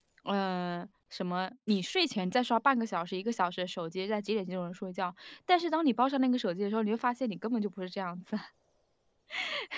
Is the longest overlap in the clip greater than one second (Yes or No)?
No